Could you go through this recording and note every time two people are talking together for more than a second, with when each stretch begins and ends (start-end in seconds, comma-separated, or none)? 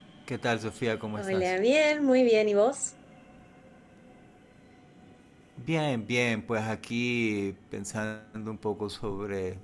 none